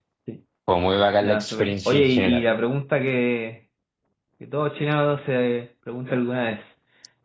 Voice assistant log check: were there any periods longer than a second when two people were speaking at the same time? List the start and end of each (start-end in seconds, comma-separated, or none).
1.2-2.4